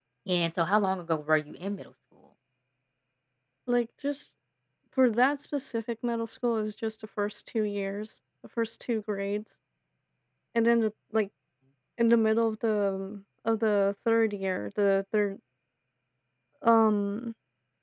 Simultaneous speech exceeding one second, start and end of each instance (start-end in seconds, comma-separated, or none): none